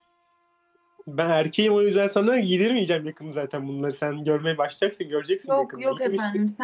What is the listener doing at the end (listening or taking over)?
taking over